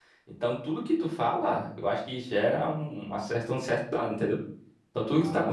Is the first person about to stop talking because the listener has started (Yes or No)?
No